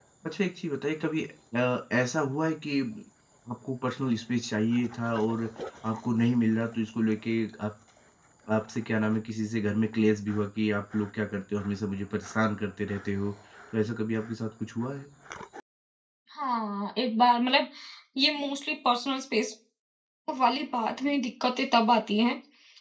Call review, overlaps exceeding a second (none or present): none